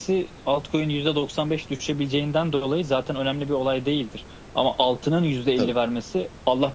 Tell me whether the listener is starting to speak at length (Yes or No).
No